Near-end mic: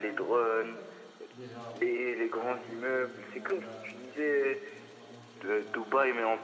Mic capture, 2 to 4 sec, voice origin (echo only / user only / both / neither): both